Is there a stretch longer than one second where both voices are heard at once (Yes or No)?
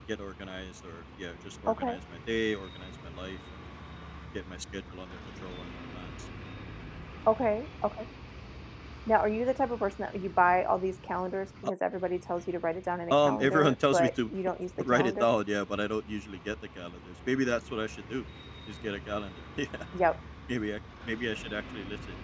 Yes